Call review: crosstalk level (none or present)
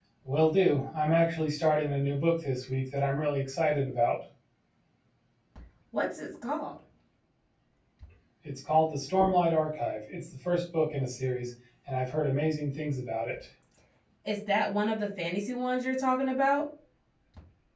none